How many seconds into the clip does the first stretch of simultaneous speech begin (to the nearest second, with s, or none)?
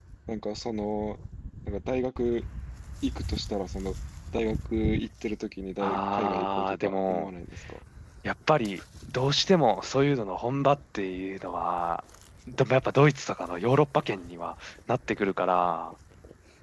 6 s